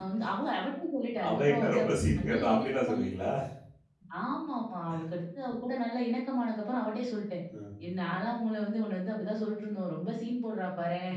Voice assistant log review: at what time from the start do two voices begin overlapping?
1.3 s

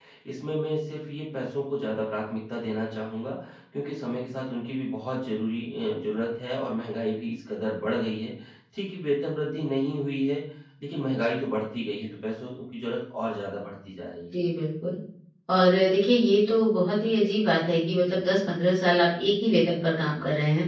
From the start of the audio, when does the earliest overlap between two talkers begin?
none

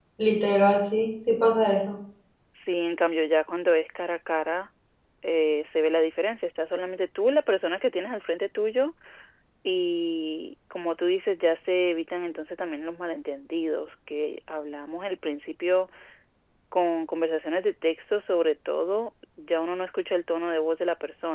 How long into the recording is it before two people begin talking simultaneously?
none

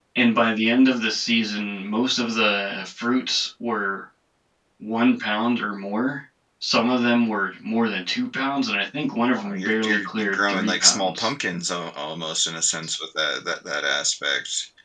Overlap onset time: 9.4 s

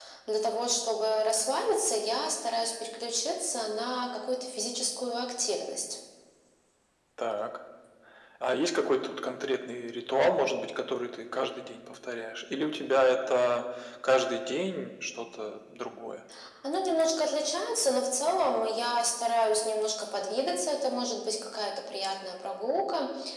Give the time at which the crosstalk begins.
none

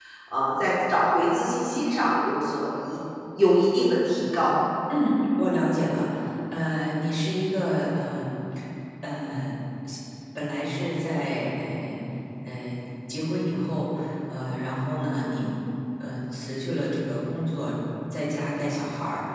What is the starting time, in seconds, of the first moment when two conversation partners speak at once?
none

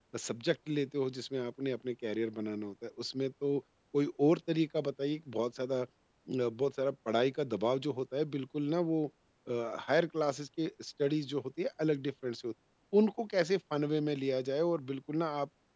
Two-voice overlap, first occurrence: none

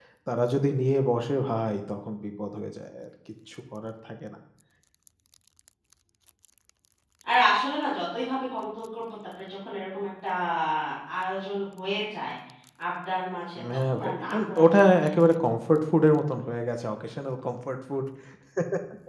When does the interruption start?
13.9 s

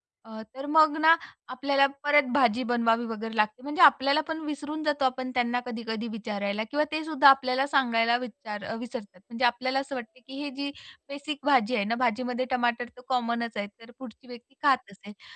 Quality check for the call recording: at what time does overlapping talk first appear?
none

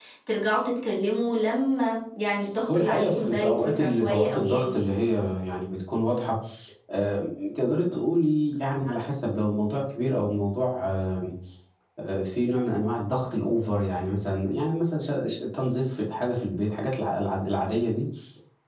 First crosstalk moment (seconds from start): 2.7 s

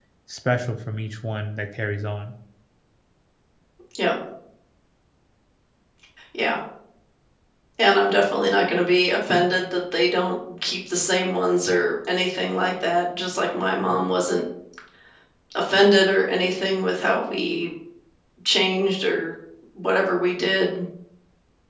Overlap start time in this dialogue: none

